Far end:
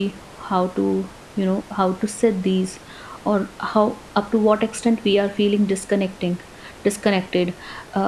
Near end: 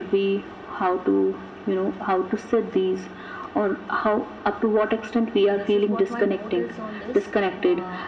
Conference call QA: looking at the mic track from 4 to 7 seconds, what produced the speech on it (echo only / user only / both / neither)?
both